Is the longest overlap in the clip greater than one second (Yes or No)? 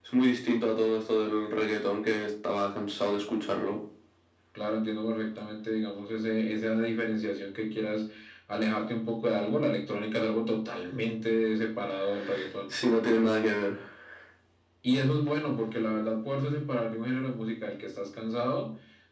No